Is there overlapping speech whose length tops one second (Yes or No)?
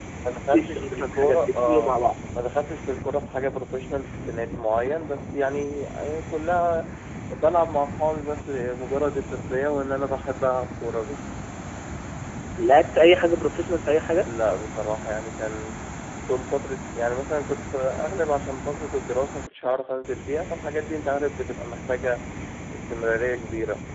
Yes